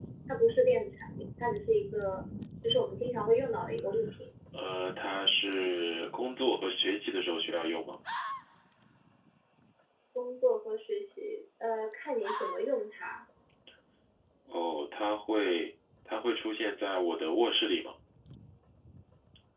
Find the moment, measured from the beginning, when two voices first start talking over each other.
none

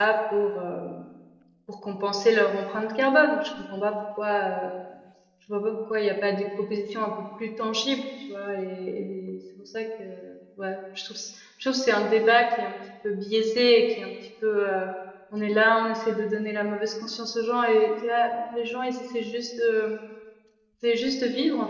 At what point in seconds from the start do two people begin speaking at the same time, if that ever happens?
none

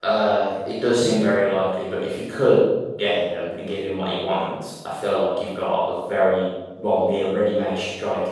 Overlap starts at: none

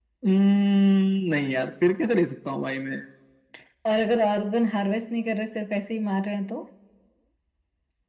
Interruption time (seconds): none

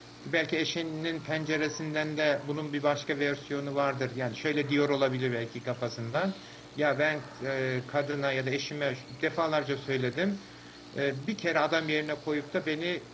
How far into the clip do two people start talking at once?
none

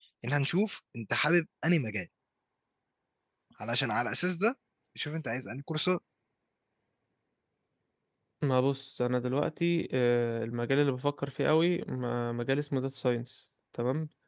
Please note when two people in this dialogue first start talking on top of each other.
none

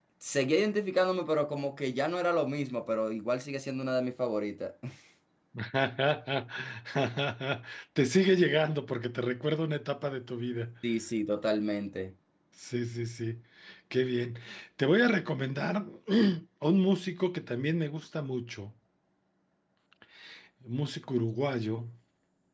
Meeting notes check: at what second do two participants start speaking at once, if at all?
none

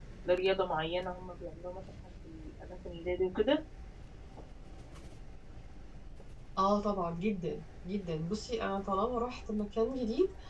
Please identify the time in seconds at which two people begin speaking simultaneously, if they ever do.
none

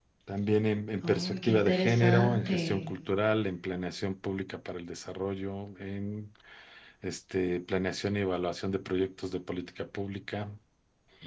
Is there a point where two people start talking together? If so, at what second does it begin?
1.0 s

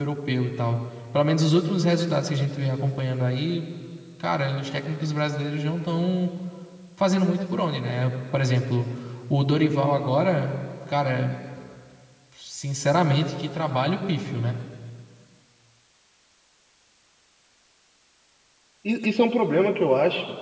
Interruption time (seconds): none

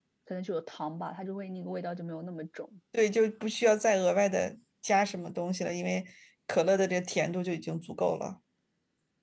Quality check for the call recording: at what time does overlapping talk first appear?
none

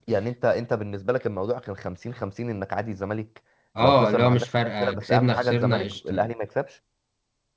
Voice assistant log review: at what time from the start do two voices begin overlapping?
3.8 s

